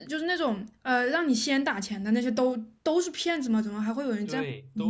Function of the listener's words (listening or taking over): taking over